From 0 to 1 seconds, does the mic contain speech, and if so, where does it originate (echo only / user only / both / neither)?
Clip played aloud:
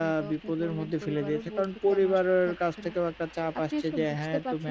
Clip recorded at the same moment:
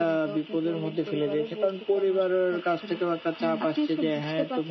echo only